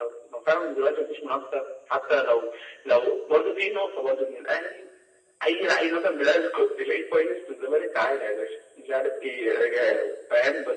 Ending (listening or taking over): listening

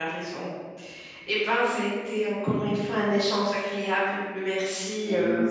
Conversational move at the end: taking over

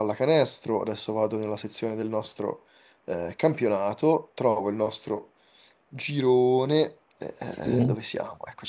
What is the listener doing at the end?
listening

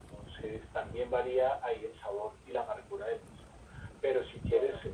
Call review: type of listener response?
listening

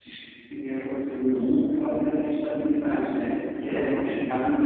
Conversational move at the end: listening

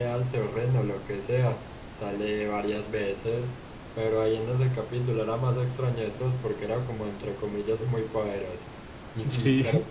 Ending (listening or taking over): listening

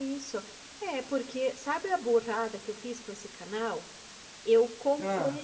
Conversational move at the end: listening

